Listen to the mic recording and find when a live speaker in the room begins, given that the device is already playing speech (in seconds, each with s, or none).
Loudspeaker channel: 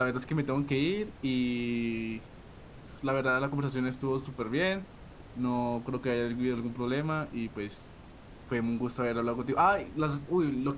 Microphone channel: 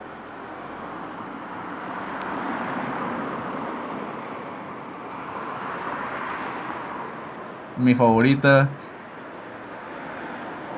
7.7 s